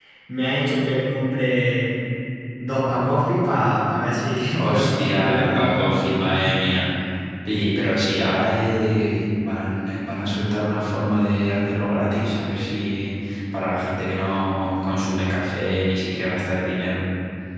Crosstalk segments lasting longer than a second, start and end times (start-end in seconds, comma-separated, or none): 4.6-5.9